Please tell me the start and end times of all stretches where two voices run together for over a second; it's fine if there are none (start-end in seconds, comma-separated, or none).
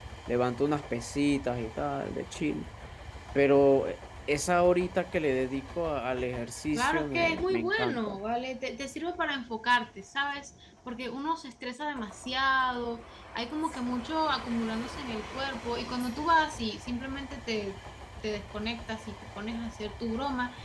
6.7-8.1